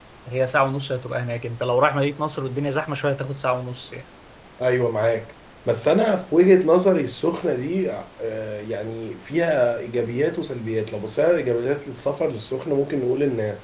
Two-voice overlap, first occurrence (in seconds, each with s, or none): none